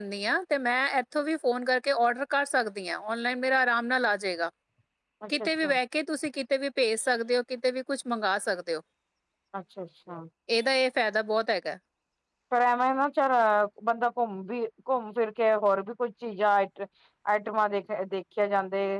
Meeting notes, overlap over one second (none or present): none